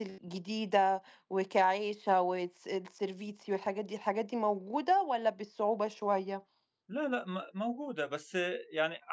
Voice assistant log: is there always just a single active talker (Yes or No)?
Yes